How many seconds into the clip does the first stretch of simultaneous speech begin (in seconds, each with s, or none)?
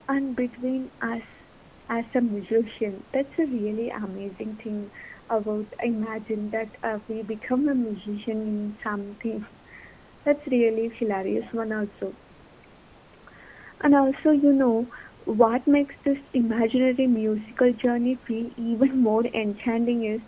none